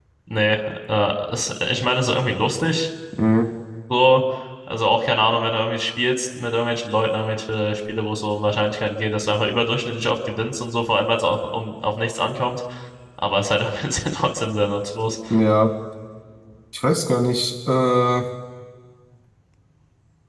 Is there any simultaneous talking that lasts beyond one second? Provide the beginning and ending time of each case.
none

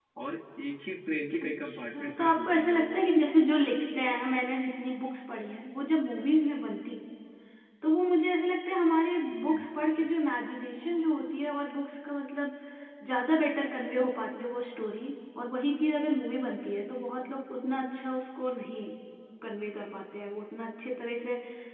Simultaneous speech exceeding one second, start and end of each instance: 1.4-2.9

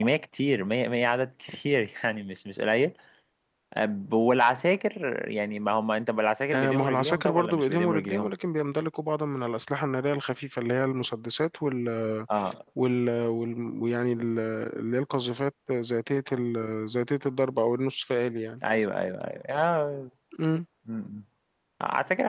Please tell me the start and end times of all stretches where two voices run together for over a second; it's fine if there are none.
6.5-8.3

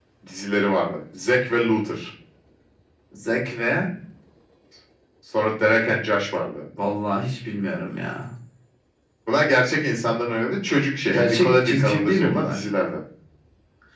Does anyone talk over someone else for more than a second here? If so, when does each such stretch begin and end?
11.1-12.6

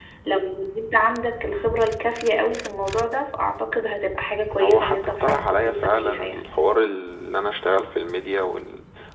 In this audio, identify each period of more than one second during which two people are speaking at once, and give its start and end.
4.6-6.4

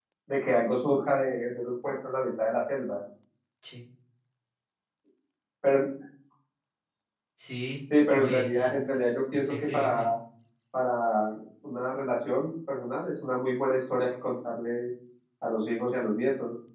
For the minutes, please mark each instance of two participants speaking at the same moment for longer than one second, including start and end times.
8.1-10.0

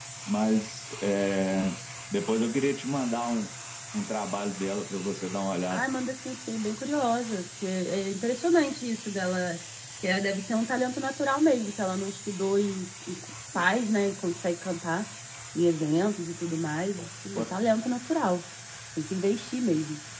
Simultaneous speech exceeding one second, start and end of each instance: none

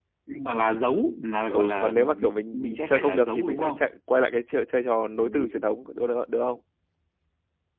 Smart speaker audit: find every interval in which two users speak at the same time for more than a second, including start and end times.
1.5-3.9

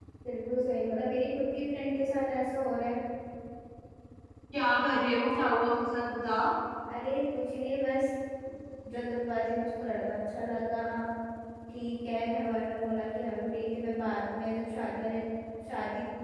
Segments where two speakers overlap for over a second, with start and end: none

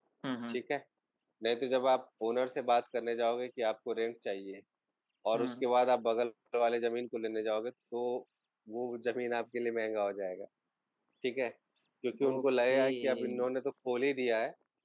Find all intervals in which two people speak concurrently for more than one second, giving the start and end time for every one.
12.2-13.4

